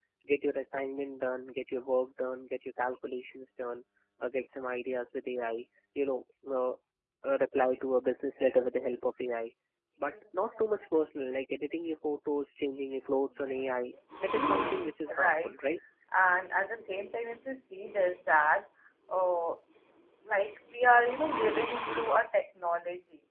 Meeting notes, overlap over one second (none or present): present